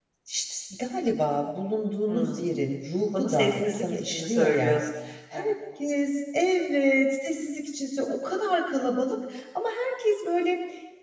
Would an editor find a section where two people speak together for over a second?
Yes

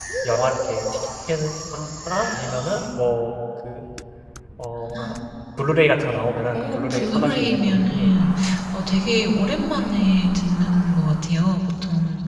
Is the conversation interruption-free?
No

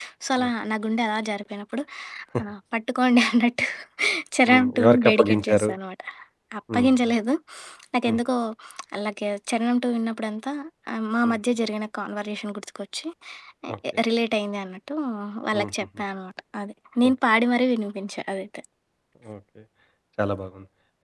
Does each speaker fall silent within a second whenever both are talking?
No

